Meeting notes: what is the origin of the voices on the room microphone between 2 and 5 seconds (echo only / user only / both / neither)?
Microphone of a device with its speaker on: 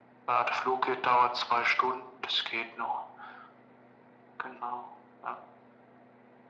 echo only